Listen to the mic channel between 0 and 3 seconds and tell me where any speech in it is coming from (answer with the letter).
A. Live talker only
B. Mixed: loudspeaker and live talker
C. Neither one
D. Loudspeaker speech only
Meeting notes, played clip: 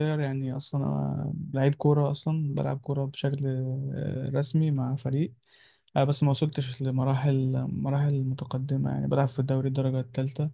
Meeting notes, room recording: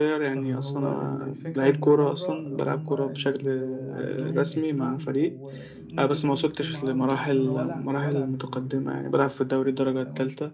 B